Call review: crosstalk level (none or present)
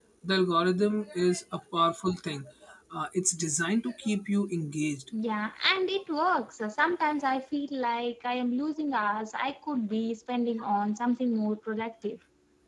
none